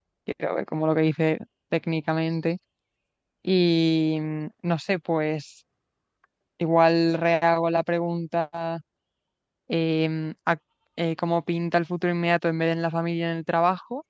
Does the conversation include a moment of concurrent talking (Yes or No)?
No